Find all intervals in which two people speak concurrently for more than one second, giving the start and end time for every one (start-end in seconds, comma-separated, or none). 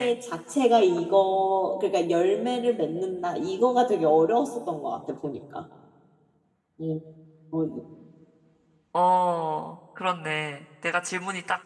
none